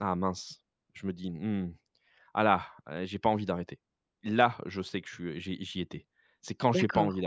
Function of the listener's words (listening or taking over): listening